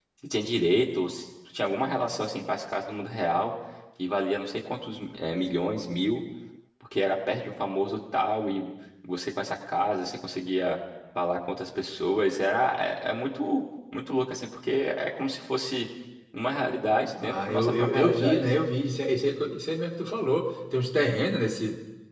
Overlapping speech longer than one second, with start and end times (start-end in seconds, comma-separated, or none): 17.2-18.4